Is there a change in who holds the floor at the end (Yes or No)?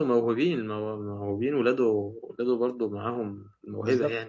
Yes